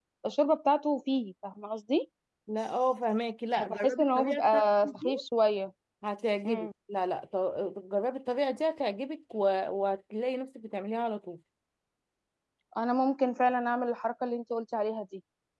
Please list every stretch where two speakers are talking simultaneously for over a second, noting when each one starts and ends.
3.6-5.1

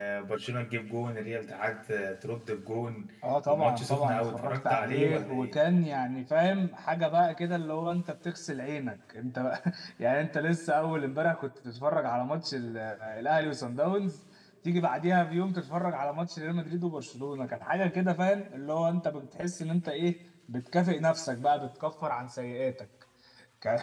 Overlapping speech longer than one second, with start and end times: 3.4-5.5

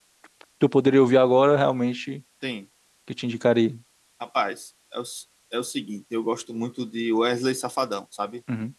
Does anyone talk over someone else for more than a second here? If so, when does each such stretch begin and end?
none

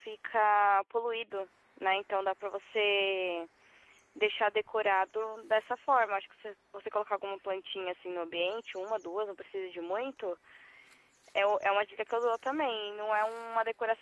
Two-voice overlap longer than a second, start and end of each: none

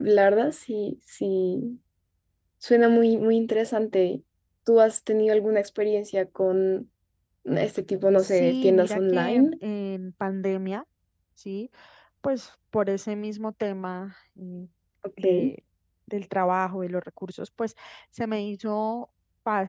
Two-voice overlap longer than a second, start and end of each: 8.2-9.5

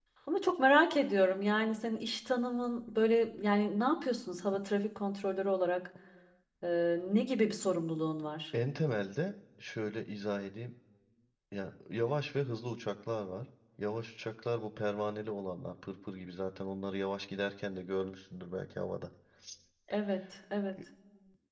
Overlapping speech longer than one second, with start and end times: none

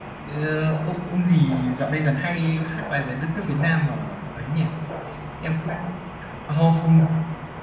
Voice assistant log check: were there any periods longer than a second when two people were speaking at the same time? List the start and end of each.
none

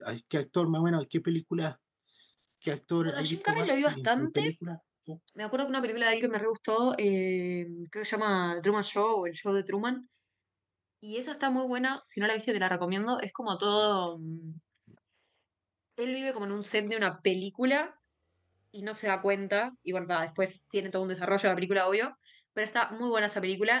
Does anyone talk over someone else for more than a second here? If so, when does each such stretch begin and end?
3.0-4.4

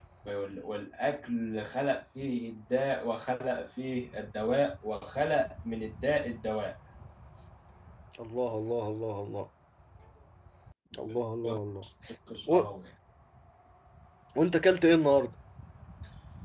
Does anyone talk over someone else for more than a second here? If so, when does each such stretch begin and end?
none

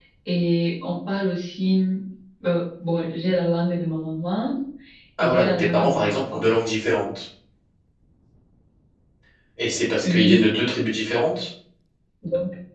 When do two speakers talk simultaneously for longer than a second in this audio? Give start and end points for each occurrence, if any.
5.2-6.5

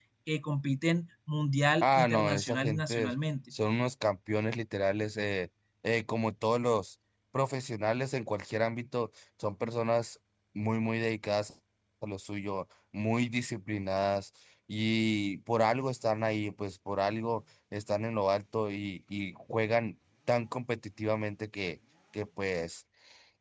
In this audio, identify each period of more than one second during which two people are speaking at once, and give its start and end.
1.8-3.1

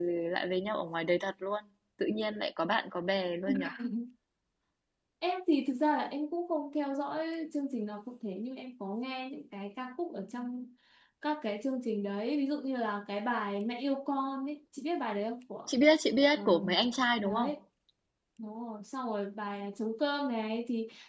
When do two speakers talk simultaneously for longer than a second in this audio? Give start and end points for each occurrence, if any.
none

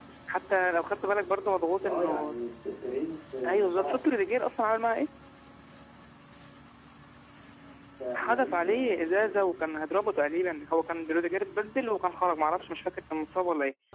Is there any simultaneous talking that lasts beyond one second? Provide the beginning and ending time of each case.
8.1-9.4

